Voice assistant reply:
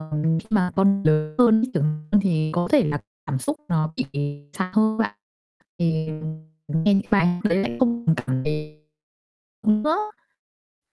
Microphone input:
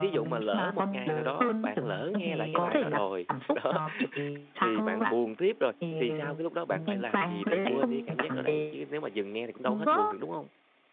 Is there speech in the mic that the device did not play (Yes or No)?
Yes